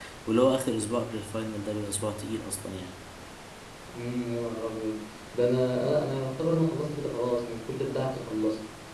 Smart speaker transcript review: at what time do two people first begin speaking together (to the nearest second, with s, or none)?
none